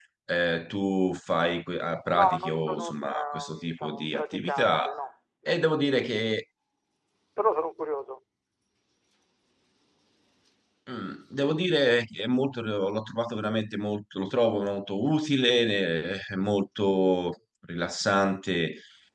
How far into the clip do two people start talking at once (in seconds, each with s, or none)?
2.1 s